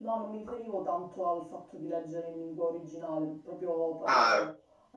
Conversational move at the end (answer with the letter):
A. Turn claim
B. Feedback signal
B